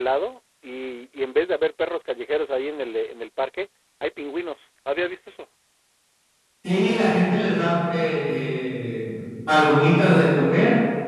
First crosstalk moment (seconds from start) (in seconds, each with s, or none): none